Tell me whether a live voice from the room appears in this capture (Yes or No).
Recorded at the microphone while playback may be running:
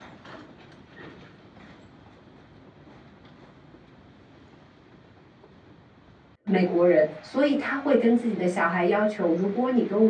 Yes